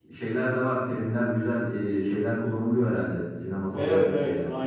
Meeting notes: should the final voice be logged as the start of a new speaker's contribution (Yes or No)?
Yes